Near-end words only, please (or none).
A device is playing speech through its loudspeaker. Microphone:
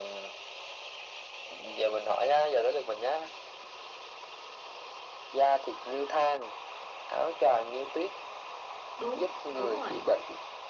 đúng đúng rồi